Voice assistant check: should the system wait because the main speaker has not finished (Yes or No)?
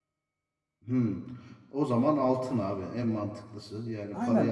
No